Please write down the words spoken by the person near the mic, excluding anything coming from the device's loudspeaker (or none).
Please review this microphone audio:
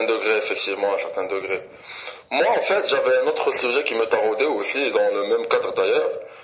none